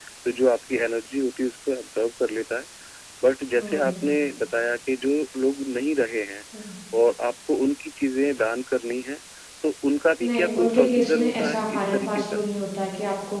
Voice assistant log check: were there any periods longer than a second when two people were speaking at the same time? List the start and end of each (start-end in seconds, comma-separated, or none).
10.2-12.4